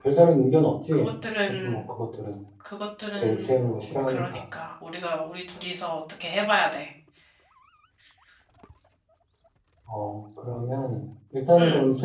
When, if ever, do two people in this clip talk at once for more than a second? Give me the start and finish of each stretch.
none

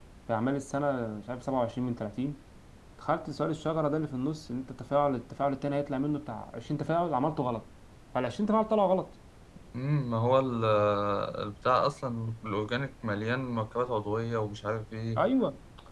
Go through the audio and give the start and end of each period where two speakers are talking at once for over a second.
none

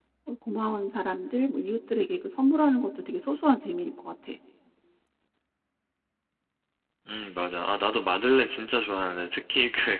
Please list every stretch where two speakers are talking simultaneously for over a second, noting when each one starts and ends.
none

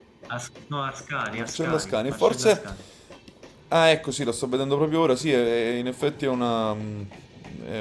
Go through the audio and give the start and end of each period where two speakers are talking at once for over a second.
1.3-2.6

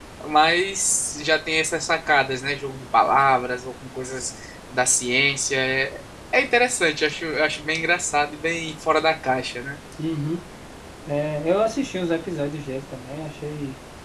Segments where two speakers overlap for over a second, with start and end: none

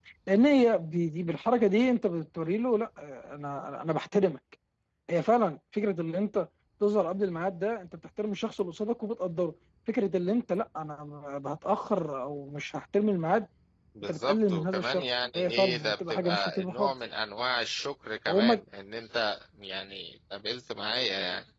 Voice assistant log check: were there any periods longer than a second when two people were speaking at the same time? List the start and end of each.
14.0-16.9

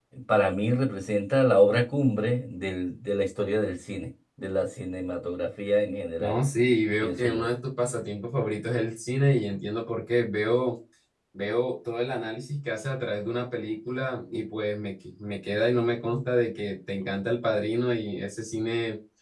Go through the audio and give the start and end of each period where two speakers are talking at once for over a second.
none

